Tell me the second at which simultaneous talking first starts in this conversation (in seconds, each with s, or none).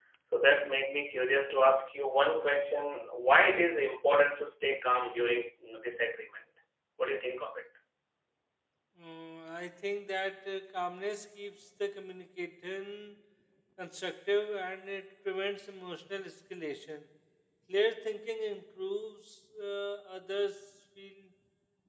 none